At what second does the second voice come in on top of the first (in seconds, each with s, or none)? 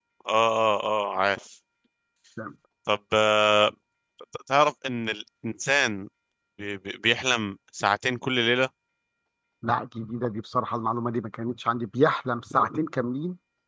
none